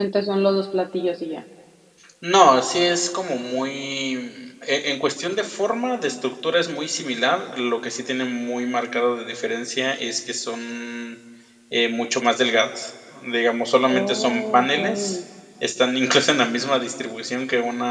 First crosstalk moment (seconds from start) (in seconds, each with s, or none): 13.9 s